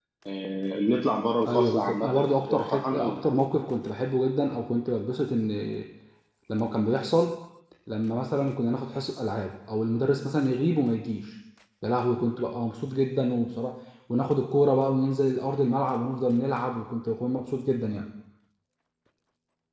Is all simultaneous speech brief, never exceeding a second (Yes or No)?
No